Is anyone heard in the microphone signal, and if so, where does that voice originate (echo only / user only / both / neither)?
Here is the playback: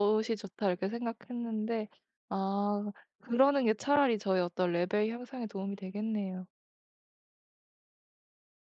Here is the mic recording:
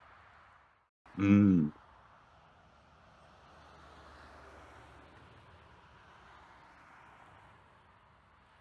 user only